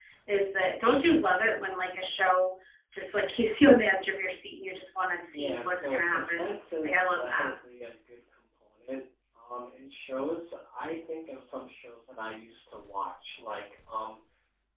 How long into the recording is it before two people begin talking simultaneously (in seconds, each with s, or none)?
5.3 s